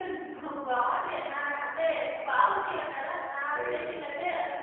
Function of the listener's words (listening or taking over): listening